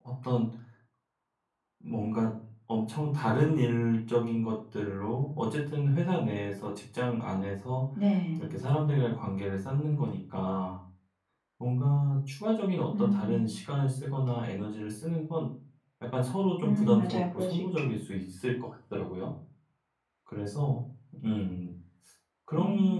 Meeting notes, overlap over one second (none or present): present